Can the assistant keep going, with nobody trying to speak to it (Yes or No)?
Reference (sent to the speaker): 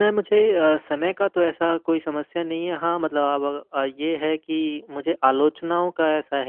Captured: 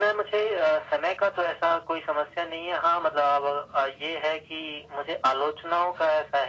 Yes